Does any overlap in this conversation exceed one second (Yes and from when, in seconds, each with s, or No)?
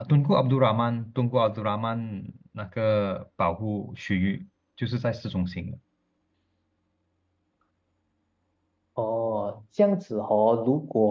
No